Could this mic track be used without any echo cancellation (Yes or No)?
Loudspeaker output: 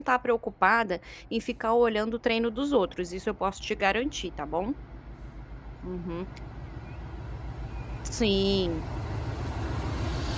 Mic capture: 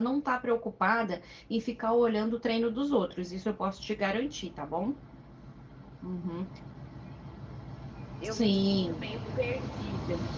No